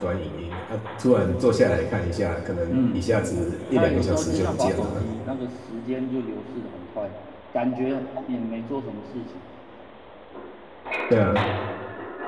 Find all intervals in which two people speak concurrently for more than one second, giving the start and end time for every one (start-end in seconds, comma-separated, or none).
3.7-5.0